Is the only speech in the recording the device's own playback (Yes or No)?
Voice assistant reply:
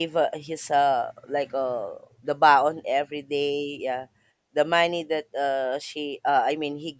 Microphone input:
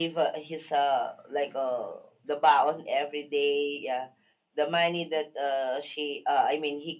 Yes